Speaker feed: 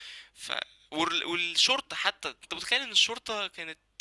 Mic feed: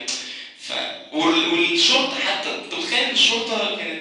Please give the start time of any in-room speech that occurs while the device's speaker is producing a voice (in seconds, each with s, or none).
none